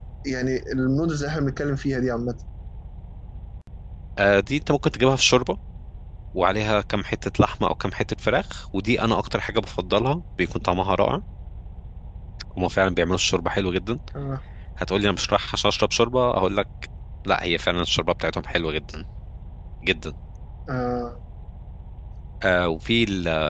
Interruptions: none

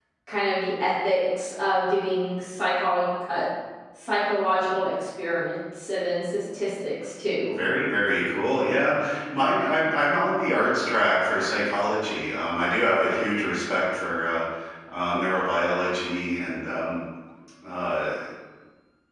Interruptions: none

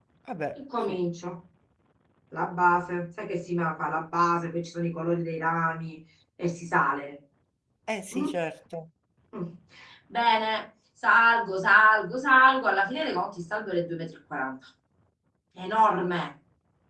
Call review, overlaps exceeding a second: none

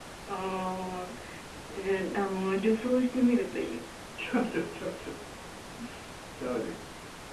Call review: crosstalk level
none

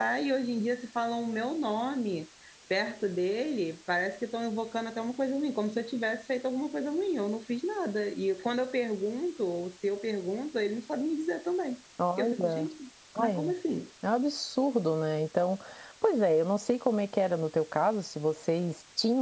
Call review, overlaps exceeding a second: none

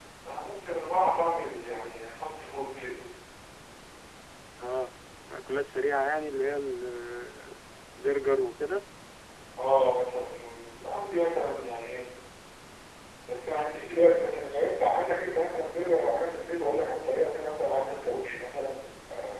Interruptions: none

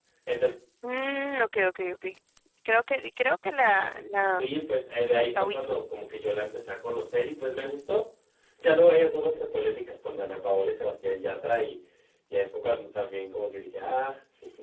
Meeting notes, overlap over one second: none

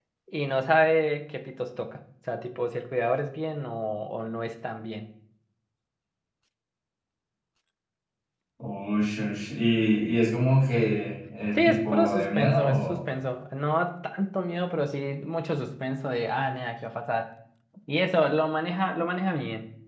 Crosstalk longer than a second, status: present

